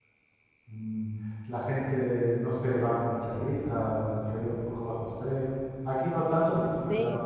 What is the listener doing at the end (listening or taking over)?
listening